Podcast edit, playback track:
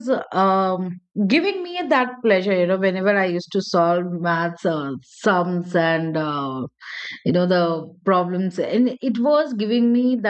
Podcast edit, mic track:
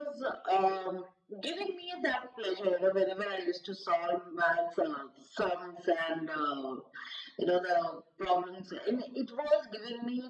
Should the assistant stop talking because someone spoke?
No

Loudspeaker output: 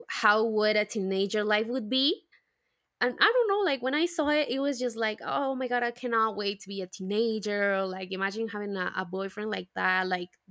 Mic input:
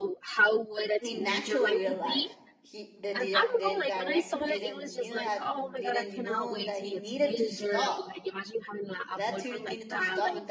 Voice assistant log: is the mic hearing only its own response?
No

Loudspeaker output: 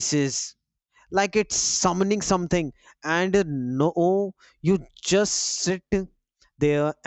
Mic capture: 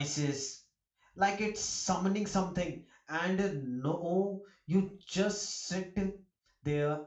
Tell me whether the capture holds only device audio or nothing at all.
Yes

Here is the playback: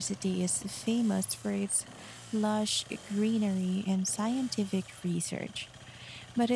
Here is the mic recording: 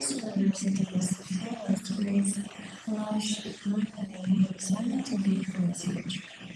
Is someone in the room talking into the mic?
No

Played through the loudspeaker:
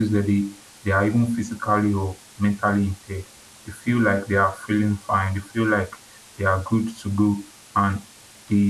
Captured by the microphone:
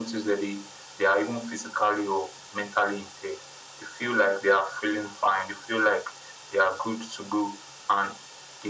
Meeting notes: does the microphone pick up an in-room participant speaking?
No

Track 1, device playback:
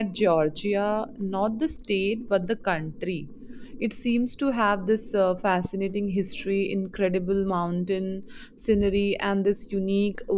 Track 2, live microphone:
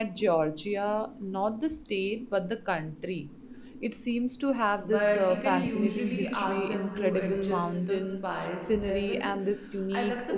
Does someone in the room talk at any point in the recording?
Yes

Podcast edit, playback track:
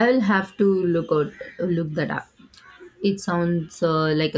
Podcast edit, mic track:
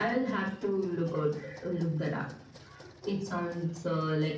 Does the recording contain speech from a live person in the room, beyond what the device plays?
No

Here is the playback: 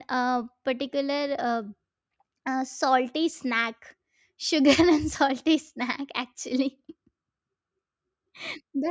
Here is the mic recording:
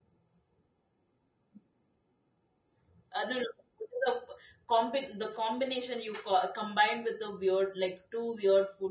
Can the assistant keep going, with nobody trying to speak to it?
No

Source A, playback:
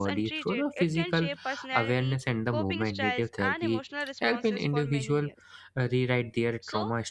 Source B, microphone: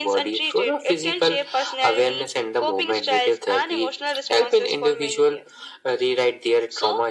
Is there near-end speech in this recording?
No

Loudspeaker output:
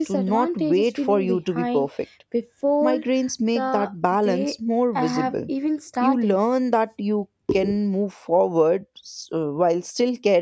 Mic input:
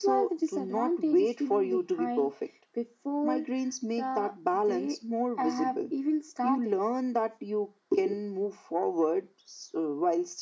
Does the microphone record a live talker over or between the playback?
No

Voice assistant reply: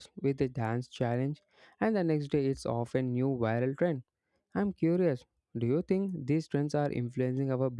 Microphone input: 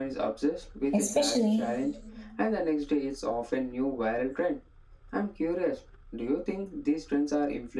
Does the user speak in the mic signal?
Yes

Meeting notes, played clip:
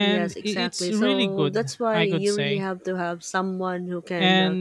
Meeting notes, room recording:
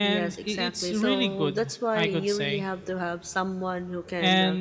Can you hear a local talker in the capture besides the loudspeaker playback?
No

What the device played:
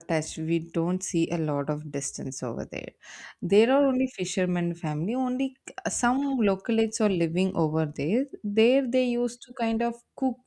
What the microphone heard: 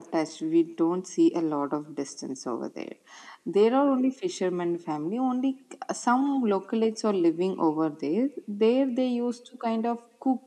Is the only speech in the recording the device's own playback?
Yes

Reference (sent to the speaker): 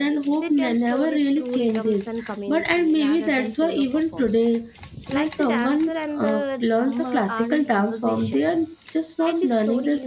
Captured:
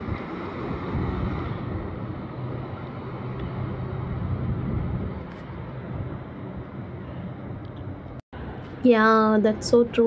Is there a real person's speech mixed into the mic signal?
Yes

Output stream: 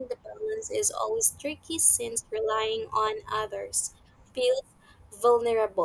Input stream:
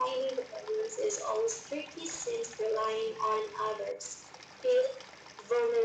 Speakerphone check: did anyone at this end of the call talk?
No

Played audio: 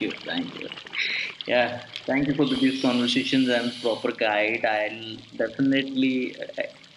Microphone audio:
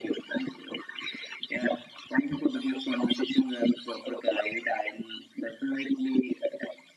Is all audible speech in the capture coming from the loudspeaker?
Yes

